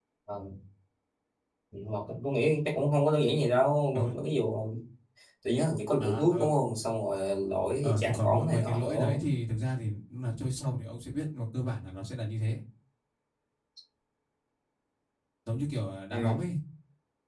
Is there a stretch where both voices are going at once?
Yes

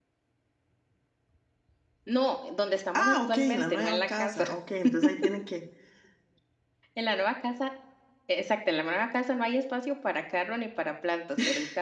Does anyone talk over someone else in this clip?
Yes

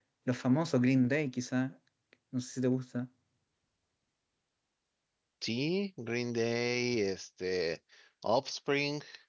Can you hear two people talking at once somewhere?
No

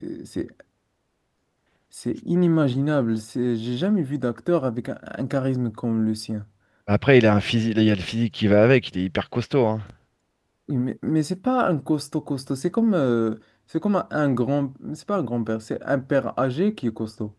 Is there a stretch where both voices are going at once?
No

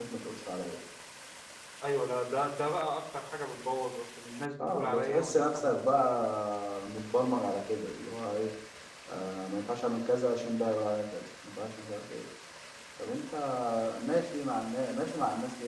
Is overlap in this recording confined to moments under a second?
No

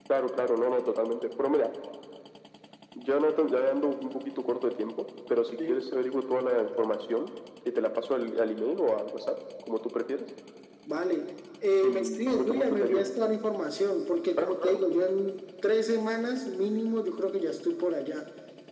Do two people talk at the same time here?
Yes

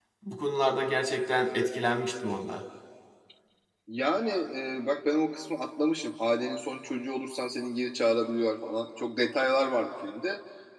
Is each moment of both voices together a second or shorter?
Yes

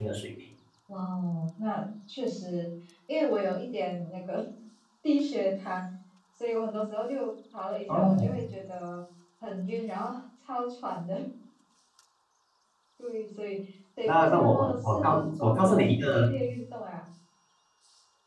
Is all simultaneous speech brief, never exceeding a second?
No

